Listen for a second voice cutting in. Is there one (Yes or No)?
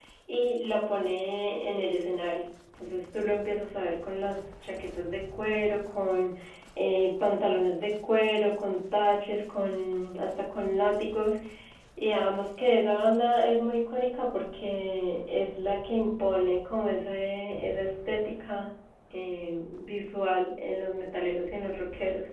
No